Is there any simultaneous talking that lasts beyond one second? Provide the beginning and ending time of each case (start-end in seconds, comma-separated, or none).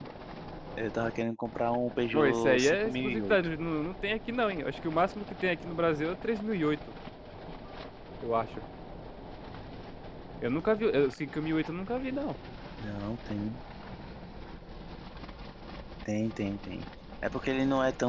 2.1-3.4